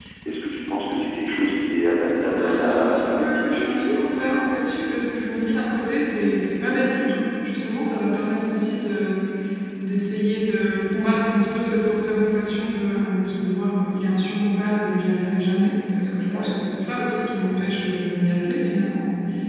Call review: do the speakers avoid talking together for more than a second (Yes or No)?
No